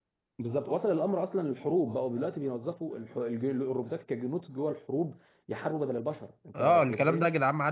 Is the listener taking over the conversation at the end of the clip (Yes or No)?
Yes